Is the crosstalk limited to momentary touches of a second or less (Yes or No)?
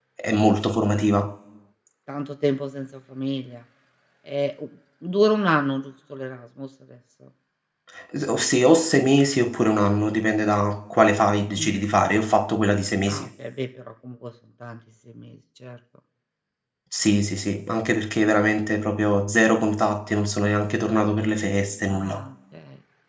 Yes